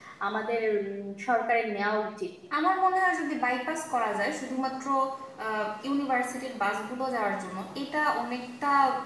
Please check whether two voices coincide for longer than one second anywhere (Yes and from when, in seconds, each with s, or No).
No